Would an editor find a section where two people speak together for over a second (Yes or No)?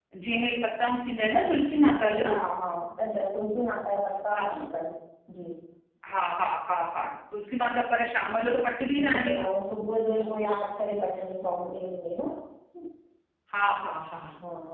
No